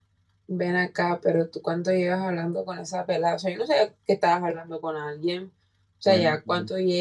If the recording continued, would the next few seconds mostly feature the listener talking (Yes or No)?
No